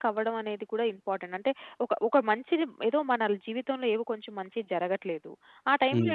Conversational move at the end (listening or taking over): listening